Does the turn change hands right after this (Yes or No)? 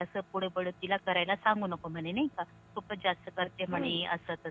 No